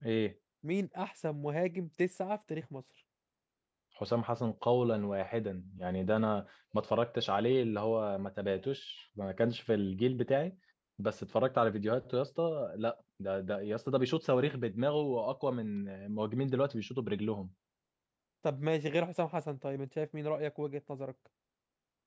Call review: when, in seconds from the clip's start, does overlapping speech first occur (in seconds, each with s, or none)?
none